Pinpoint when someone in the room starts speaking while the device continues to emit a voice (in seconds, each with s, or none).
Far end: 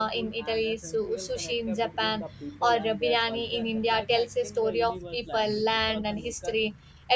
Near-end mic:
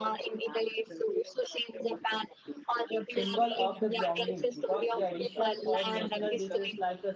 3.1 s